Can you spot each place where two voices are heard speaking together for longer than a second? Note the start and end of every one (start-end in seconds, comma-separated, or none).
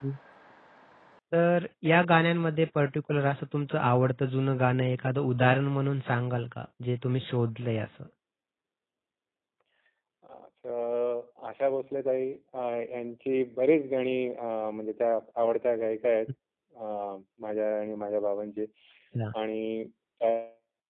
none